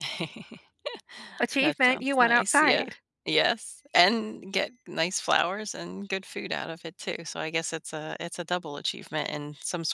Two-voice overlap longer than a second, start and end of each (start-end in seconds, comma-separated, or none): 1.6-2.9